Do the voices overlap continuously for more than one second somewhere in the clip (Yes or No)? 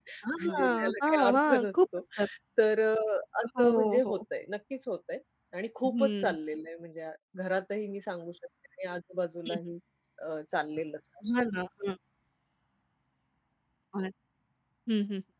Yes